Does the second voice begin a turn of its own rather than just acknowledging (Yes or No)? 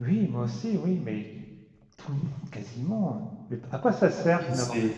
No